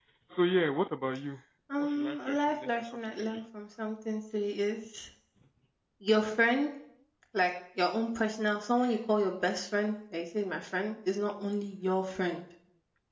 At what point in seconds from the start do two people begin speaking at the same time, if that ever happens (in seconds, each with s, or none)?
1.8 s